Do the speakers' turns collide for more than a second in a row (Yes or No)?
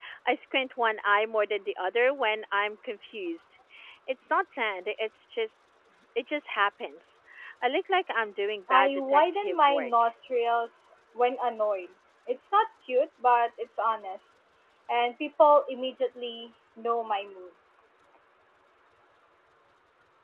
Yes